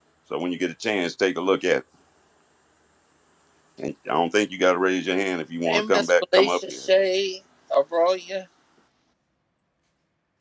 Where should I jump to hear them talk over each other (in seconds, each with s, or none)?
5.6 s